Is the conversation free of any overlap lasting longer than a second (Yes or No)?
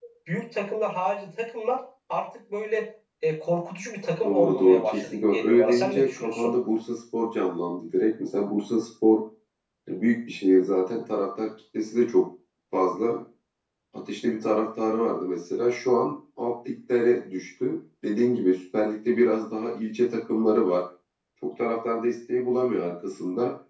No